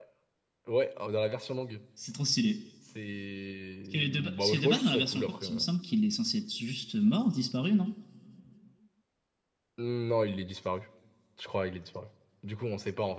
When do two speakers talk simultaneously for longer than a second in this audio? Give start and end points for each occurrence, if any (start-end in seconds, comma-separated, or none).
3.9-5.6